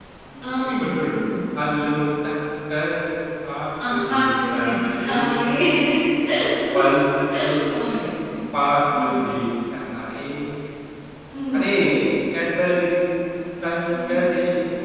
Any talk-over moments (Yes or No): Yes